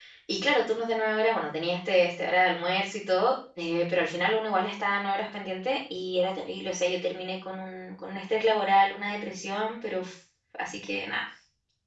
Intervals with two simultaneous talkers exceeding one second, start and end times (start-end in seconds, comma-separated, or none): none